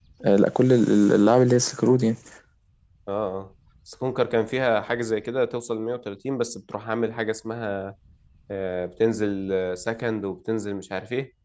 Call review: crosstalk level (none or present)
none